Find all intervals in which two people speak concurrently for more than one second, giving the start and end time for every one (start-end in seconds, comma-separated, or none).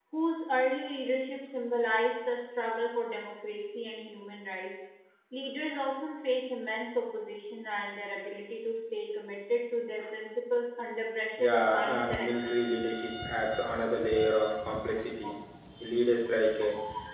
11.4-12.7